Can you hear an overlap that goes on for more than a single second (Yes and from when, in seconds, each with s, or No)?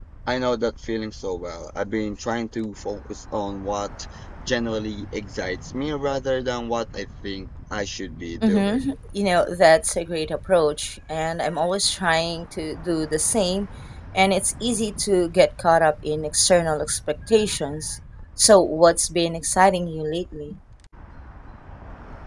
No